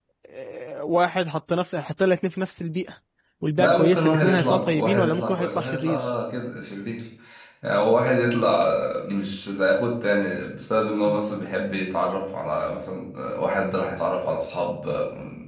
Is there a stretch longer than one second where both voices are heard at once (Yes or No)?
Yes